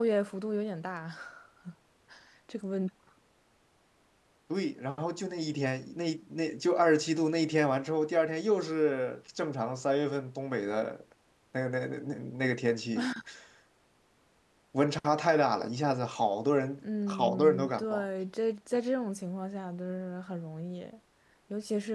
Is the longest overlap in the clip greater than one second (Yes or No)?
Yes